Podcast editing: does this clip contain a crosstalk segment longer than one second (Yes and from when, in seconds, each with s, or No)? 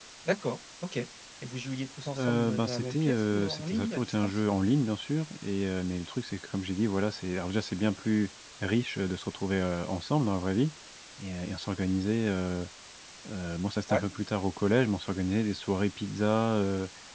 Yes, from 2.2 s